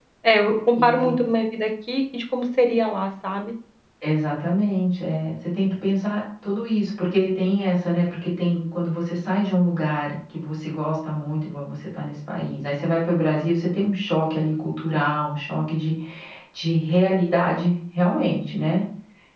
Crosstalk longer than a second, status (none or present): none